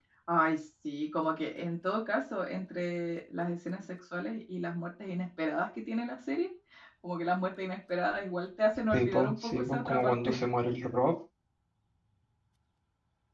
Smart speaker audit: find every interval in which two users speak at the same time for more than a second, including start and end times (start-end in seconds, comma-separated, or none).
8.9-10.4